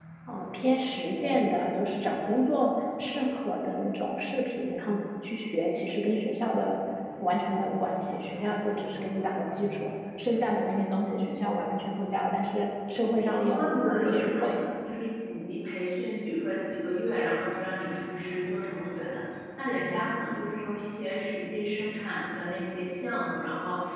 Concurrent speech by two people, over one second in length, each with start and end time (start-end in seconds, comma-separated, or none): 13.3-14.6